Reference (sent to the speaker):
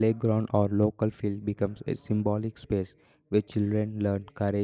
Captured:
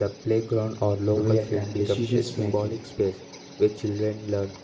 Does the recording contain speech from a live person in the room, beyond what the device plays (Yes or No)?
Yes